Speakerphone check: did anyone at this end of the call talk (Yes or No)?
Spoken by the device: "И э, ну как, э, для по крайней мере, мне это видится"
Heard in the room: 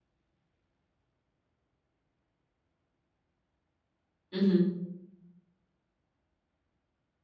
Yes